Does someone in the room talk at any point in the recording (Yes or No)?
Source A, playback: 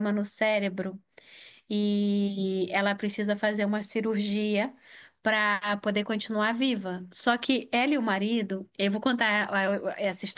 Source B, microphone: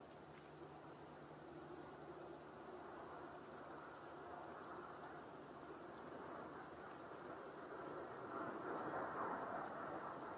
No